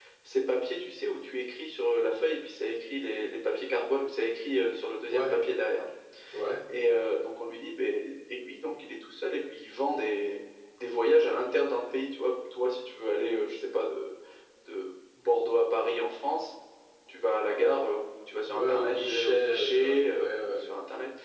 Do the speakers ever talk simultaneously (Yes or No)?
Yes